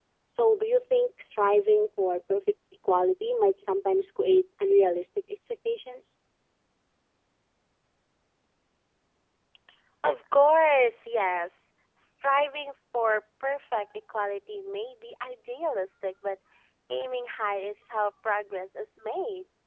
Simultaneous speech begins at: none

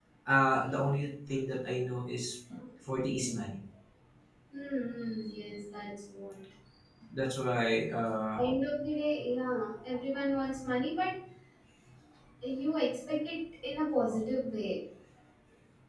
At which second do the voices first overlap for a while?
none

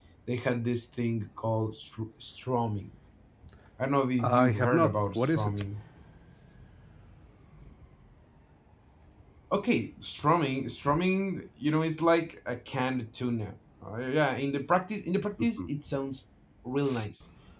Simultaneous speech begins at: 4.2 s

